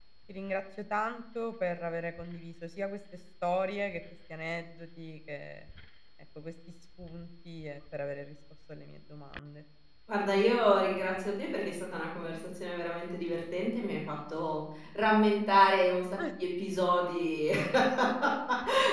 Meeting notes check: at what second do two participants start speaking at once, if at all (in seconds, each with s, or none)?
none